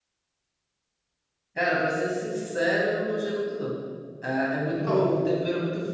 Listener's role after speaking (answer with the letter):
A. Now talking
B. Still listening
B